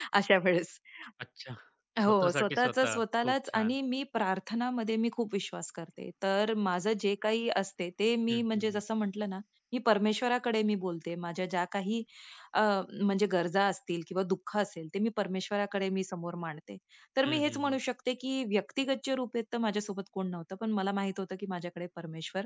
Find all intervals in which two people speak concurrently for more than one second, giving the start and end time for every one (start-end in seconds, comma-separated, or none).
2.0-3.7